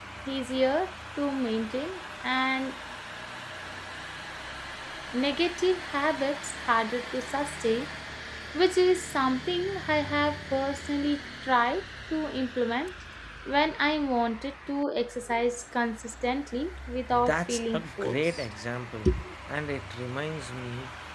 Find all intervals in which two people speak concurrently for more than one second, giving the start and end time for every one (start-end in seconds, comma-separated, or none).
17.1-18.4